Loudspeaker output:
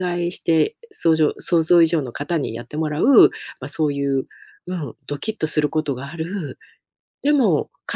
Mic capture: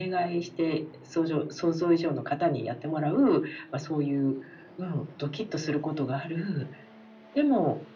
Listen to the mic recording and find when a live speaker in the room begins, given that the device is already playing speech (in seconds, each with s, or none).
none